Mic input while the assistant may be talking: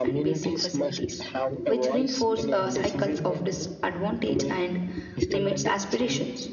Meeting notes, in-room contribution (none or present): present